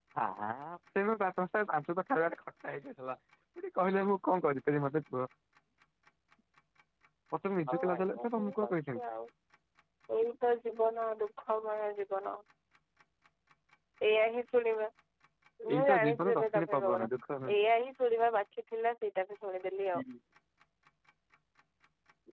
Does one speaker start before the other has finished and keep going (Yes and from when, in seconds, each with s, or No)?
Yes, from 7.7 s